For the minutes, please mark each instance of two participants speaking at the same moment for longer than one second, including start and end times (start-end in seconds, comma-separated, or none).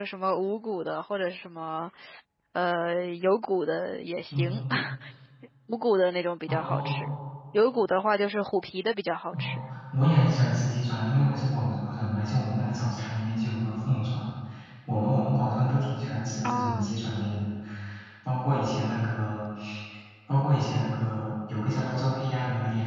none